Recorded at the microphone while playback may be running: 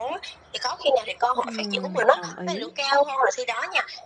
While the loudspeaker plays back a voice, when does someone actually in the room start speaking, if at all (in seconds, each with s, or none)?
1.4 s